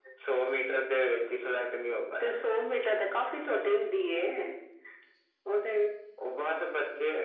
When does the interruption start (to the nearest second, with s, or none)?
none